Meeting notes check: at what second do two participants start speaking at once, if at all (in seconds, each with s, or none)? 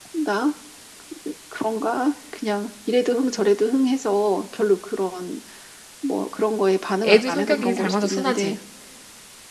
7.0 s